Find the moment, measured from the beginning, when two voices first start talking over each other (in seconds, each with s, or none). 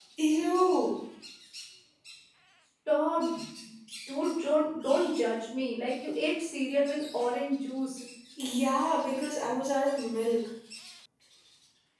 none